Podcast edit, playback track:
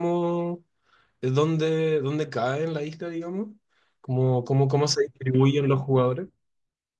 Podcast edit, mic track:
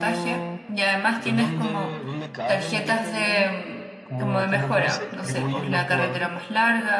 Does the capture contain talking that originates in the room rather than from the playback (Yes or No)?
Yes